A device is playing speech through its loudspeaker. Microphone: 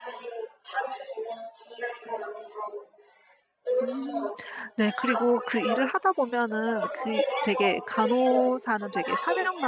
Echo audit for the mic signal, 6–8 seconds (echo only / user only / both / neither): both